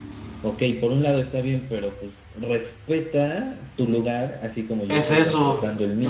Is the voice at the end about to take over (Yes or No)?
Yes